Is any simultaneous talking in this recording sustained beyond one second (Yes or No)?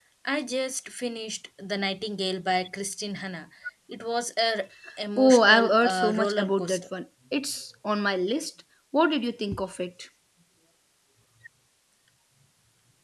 Yes